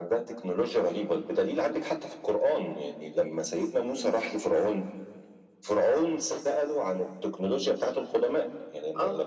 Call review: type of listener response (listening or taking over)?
listening